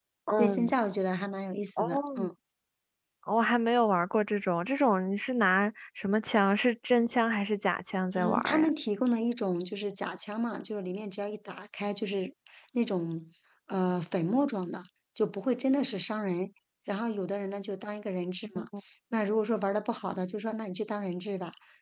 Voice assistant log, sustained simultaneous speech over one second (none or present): none